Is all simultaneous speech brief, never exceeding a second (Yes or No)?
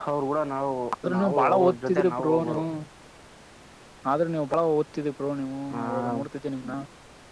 No